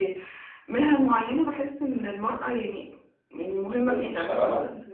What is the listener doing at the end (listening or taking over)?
listening